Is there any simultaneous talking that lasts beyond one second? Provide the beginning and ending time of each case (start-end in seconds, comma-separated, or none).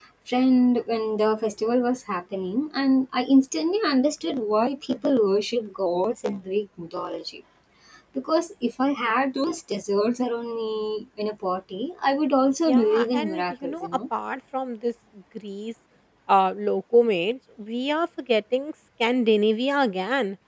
12.7-14.0